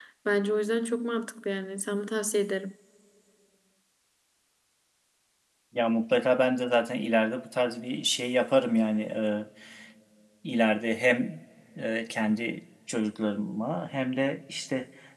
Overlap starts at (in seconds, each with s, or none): none